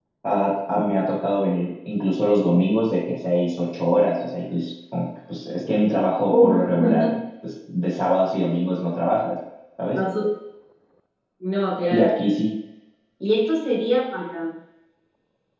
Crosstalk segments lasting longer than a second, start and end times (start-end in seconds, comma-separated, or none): none